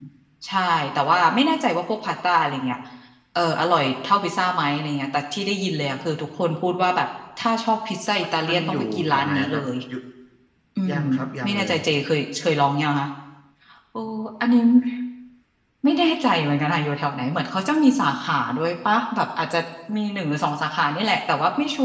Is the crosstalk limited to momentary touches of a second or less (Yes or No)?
No